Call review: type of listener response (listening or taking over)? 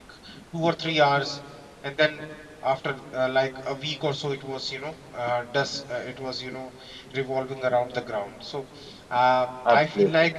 listening